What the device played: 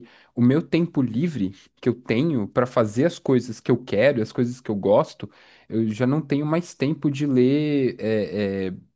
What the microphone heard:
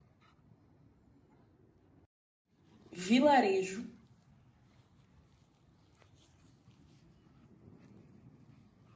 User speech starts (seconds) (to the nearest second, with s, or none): 3 s